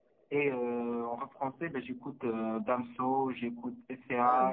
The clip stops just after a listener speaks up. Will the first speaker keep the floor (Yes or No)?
Yes